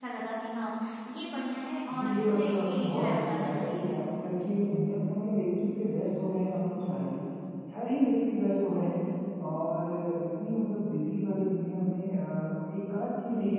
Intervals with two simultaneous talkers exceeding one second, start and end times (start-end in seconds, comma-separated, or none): 1.9-3.9